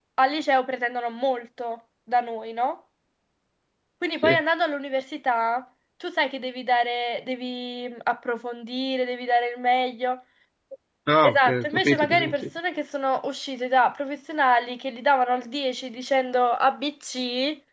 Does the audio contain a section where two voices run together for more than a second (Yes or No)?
Yes